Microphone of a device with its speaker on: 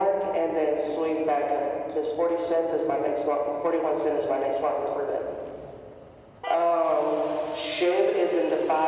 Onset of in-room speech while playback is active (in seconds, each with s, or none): none